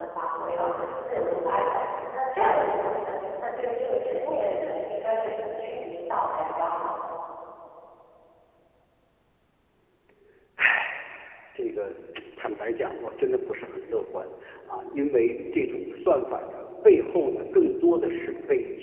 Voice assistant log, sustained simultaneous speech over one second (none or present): none